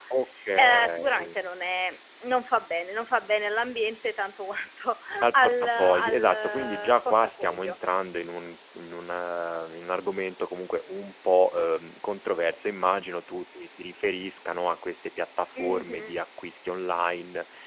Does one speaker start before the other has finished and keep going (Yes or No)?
Yes